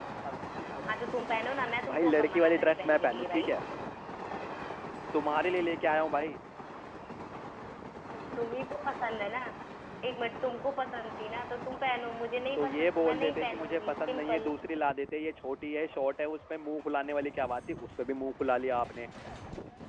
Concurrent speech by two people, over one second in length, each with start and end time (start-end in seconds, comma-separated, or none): 1.9-3.5, 12.6-14.5